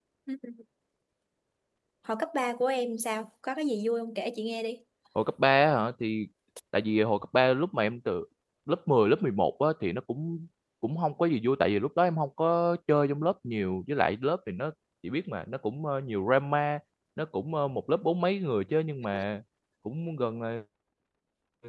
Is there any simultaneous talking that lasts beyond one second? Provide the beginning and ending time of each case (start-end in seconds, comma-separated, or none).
none